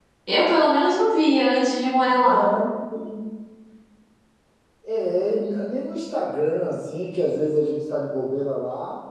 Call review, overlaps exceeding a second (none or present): none